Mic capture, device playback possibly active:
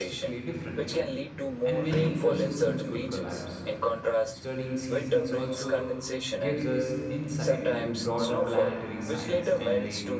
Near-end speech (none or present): present